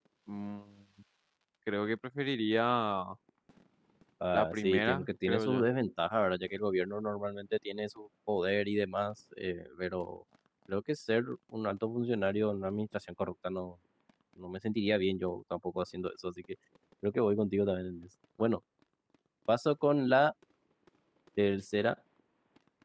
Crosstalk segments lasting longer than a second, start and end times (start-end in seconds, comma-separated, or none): 4.3-5.7